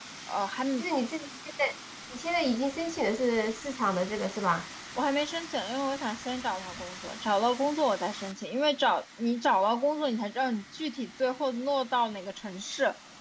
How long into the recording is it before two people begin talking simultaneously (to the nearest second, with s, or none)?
none